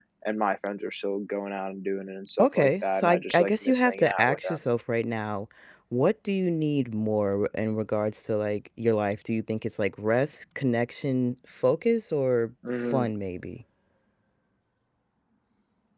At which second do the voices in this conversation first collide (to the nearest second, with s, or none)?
2 s